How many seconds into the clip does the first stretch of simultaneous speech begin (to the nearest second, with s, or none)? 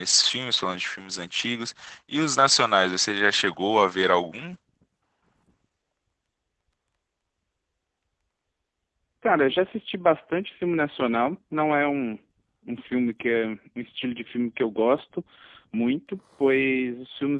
none